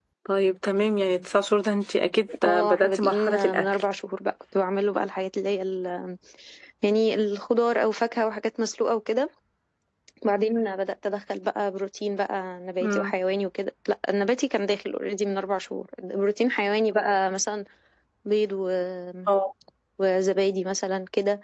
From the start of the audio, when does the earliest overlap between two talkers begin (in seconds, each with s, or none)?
2.4 s